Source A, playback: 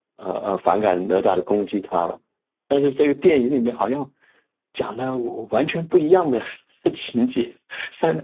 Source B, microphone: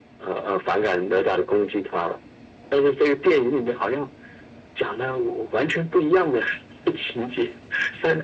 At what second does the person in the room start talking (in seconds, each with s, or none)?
none